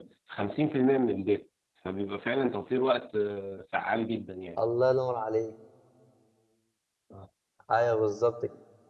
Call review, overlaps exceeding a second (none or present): none